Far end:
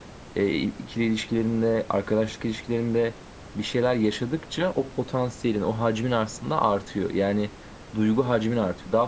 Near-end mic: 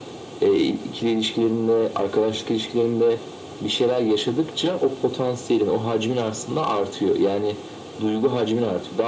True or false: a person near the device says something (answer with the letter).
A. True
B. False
B